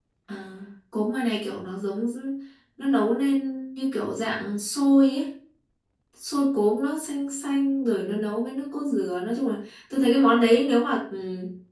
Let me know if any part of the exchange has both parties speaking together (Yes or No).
No